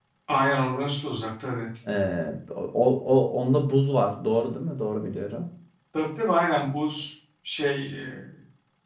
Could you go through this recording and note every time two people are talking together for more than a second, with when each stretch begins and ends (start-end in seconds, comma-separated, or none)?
none